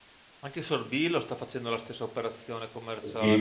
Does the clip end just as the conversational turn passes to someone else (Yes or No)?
Yes